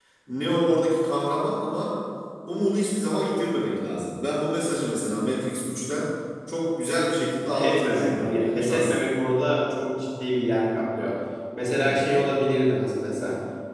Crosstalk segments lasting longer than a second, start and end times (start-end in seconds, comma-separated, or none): 7.5-9.0